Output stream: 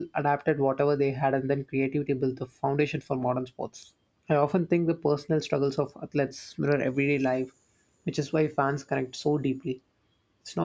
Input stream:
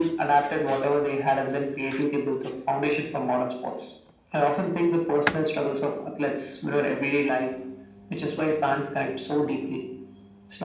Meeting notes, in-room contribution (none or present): none